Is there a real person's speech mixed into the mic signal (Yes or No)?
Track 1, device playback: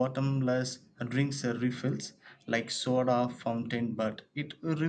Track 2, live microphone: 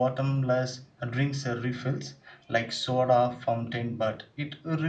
No